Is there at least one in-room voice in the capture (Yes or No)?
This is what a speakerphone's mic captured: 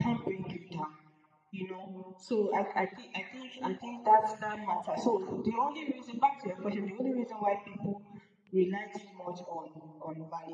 No